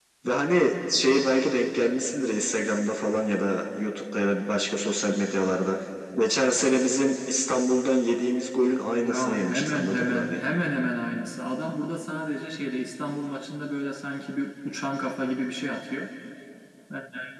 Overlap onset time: 9 s

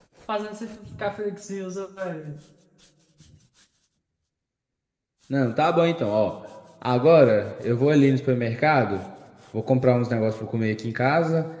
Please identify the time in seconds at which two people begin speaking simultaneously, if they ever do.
none

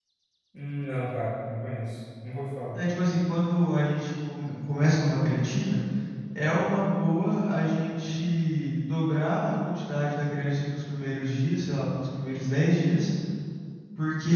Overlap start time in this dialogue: none

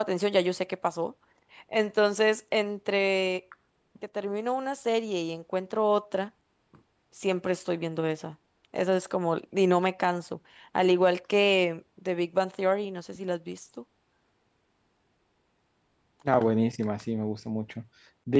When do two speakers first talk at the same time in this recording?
none

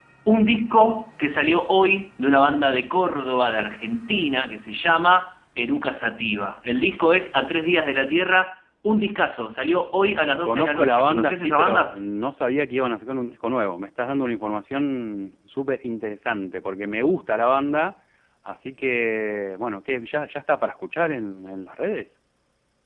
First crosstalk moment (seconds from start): 10 s

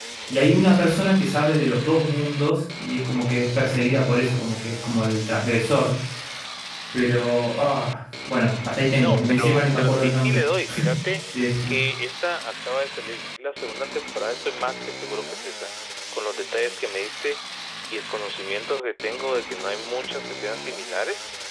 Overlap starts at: 9 s

